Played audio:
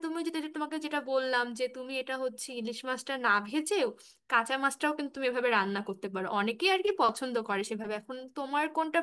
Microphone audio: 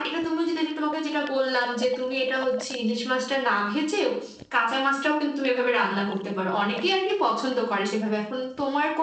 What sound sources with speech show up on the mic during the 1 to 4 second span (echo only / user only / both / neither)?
echo only